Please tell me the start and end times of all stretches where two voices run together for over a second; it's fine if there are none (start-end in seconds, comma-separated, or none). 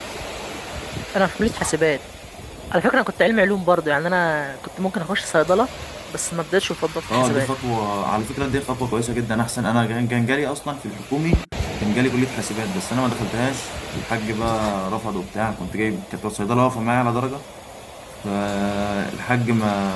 none